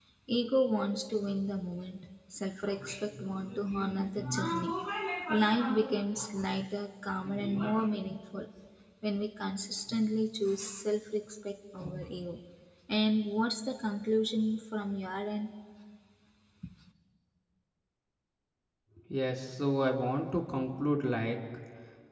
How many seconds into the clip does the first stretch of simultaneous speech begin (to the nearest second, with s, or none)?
none